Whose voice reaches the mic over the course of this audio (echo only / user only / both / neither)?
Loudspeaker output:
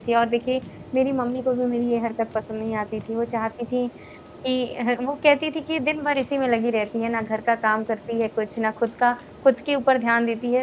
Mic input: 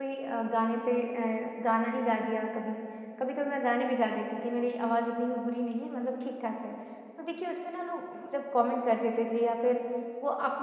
user only